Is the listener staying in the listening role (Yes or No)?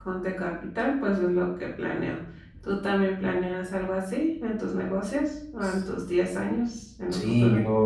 No